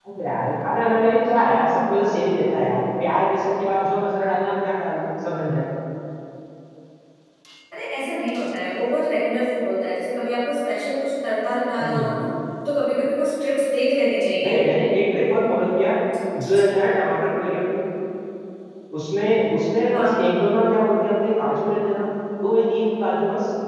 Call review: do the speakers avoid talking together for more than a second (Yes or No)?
Yes